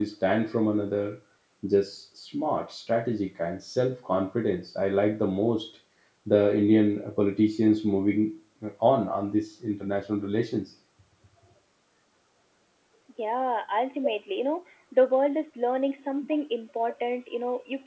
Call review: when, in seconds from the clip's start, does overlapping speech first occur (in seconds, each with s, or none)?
none